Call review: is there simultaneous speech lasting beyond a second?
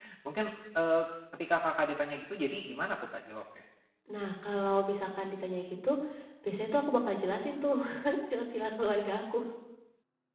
No

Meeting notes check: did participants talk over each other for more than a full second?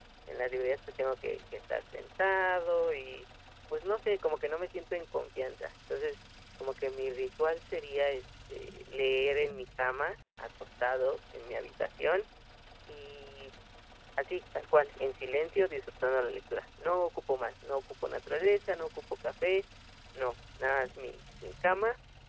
No

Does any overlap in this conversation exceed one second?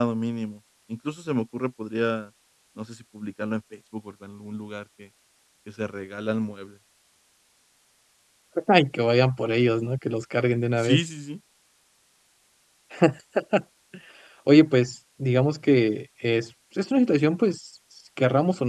No

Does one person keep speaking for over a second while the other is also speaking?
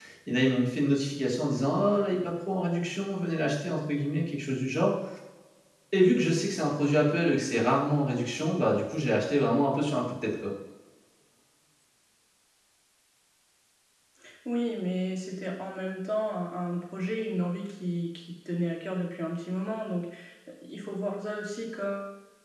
No

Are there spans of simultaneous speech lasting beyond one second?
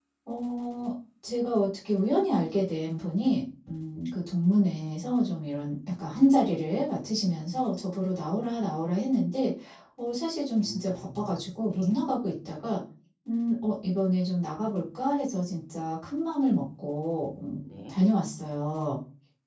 Yes, from 10.6 s

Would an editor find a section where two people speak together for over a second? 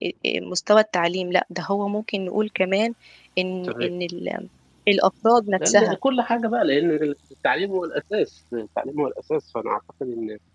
No

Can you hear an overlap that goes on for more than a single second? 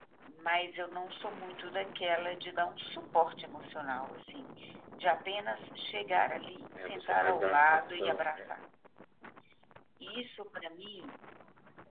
Yes, from 6.7 s

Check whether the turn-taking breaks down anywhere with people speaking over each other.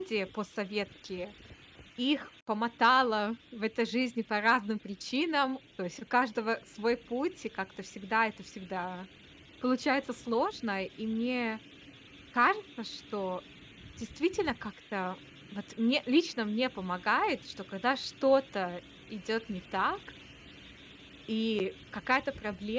No

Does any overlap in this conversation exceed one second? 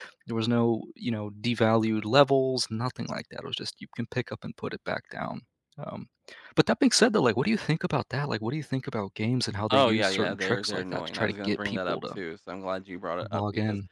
Yes, from 9.7 s

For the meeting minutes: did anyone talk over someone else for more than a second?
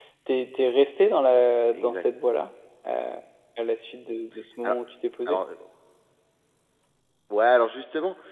No

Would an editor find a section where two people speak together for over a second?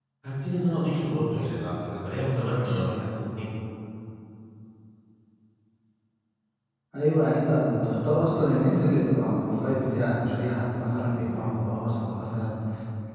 No

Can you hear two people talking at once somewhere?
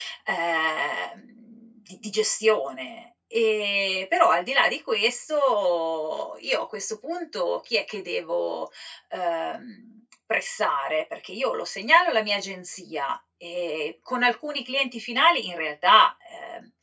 No

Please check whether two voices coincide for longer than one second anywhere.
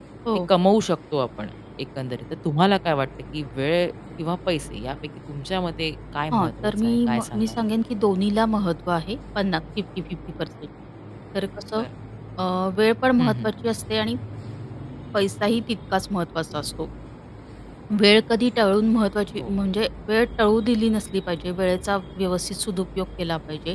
Yes, from 6.3 s

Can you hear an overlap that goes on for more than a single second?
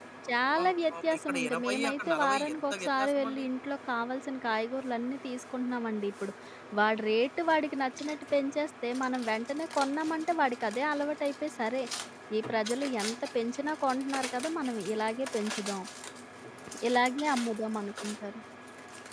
Yes, from 0.6 s

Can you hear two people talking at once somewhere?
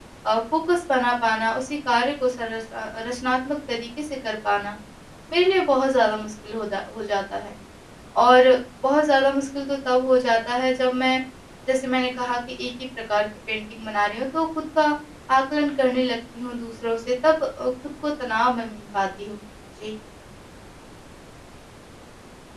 No

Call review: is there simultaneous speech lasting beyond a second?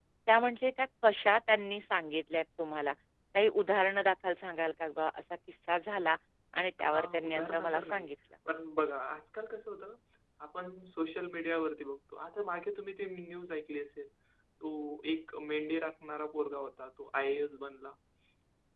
Yes, from 6.8 s

